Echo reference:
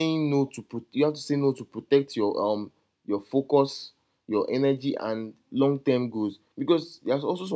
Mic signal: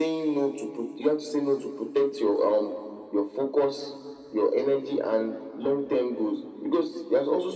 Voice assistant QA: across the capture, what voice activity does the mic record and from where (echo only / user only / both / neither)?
echo only